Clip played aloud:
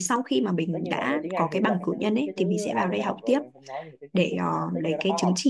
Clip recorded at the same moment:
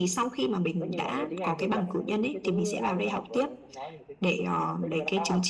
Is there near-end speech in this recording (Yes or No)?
No